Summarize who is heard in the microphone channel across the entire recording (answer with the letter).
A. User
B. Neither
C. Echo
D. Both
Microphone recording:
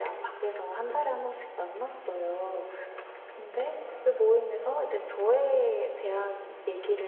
C